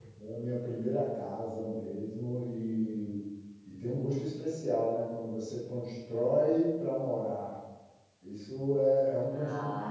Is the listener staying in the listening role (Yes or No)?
Yes